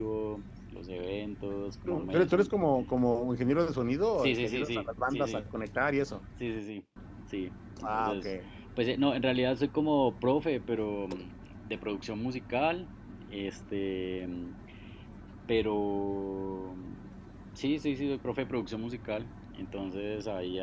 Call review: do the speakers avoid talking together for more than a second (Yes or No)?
No